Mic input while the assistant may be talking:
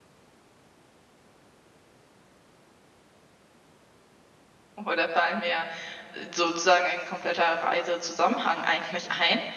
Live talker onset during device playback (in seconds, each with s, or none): 4.8 s